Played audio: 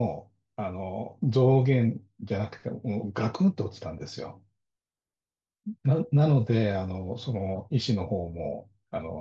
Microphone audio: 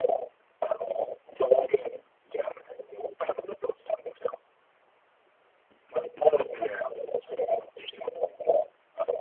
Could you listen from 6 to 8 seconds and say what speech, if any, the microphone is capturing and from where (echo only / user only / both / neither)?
echo only